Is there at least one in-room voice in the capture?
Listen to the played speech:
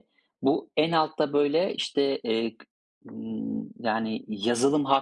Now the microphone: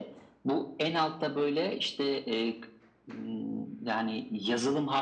No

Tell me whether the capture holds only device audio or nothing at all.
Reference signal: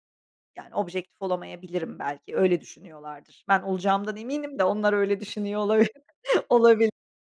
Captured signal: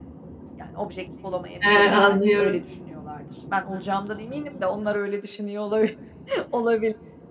No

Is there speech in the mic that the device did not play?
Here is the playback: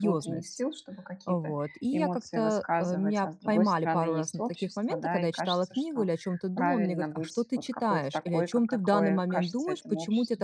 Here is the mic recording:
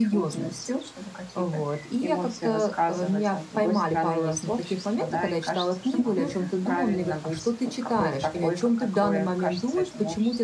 Yes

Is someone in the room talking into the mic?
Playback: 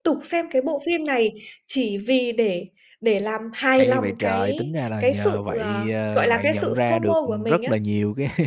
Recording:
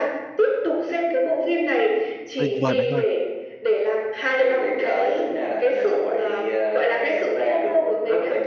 Yes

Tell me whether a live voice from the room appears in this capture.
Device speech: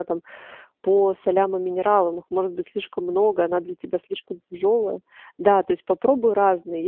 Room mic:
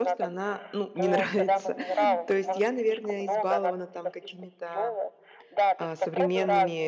Yes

